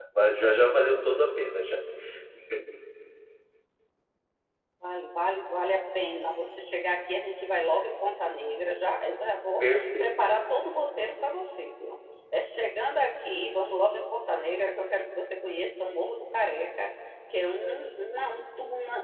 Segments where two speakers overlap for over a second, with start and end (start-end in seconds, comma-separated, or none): none